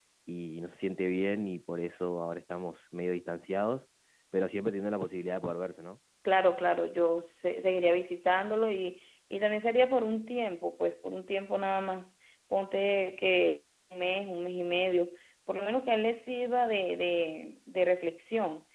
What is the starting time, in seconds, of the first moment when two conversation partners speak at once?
none

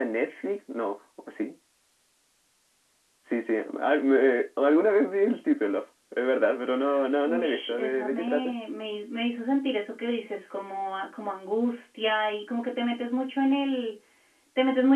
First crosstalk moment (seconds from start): 7.2 s

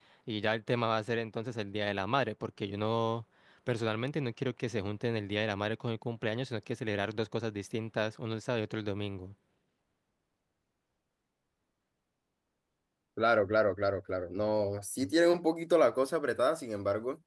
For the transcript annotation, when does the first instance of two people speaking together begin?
none

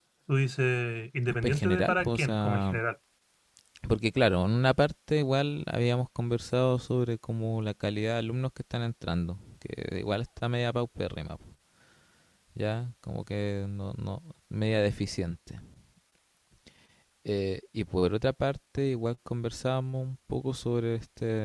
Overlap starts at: 1.4 s

